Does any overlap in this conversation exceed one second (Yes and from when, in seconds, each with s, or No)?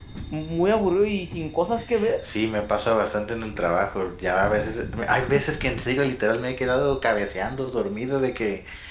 No